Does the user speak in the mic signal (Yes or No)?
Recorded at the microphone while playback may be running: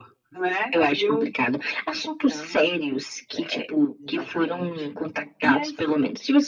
No